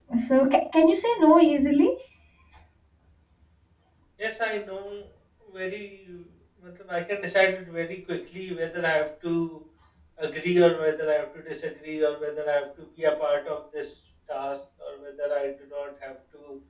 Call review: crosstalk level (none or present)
none